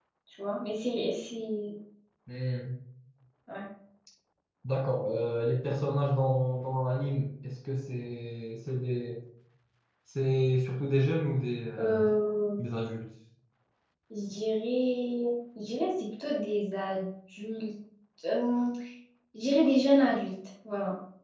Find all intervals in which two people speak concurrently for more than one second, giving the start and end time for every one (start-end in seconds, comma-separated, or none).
none